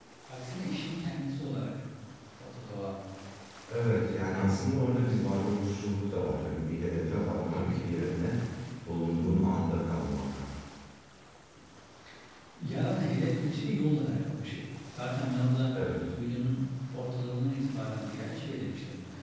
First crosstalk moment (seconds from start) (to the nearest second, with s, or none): 4 s